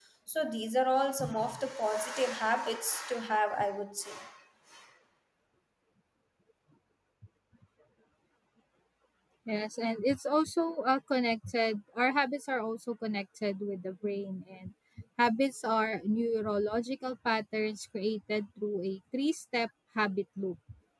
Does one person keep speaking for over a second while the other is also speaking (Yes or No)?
No